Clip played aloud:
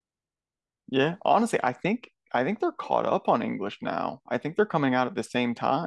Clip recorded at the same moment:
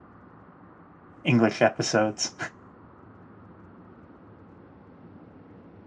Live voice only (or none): English episodes.